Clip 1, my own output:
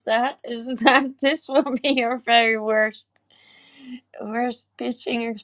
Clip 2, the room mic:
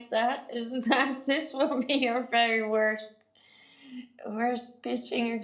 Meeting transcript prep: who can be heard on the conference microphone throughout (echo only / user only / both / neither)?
echo only